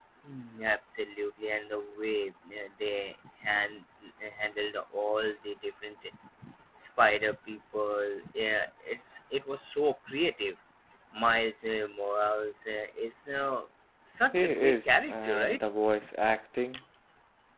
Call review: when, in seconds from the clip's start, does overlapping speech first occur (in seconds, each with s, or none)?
14.3 s